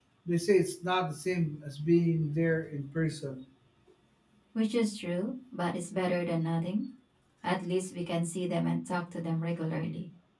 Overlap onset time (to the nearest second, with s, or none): none